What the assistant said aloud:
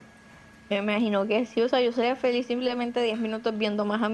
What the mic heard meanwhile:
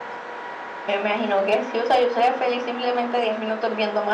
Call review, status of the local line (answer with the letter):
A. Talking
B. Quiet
B